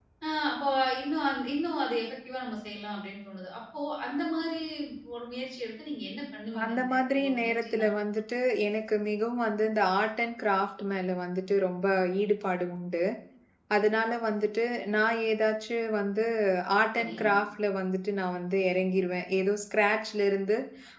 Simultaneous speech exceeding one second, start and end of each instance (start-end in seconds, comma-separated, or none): 6.6-7.9